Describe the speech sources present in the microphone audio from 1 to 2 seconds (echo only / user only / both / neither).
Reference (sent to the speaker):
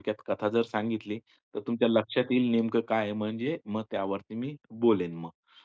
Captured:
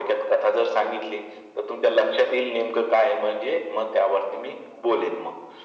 echo only